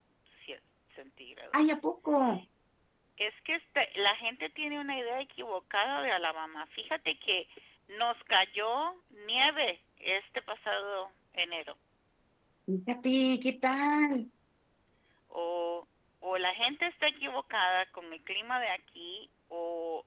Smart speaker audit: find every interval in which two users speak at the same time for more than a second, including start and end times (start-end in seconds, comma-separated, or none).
none